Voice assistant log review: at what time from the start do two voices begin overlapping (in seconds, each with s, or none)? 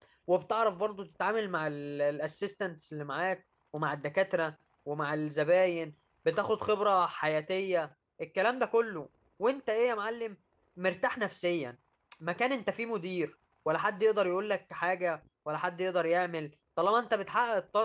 none